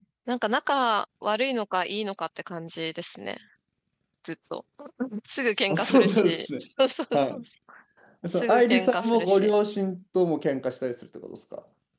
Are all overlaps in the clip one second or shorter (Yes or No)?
No